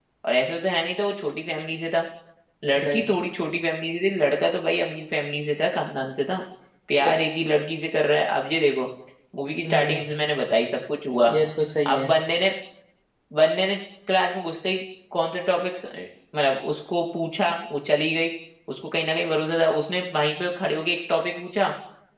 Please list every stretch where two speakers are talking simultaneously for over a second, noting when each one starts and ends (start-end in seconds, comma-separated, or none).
none